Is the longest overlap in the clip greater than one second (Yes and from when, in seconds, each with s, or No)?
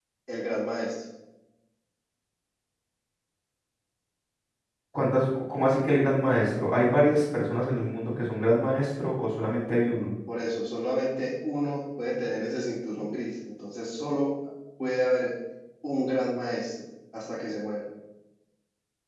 No